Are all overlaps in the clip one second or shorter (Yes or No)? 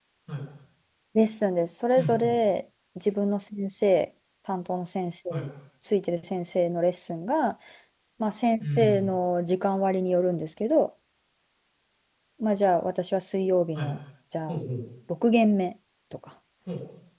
Yes